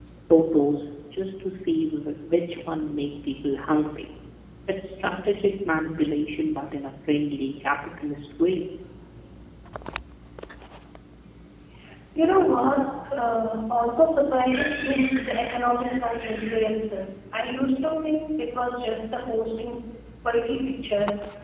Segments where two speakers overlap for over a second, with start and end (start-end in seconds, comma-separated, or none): none